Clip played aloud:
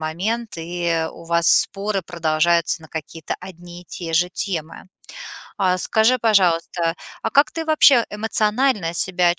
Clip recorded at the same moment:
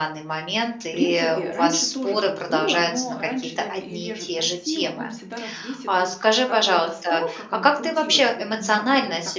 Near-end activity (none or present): present